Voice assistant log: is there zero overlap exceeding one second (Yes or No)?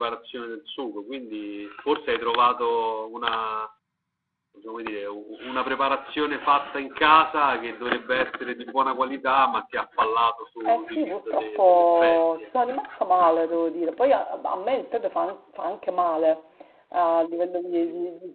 No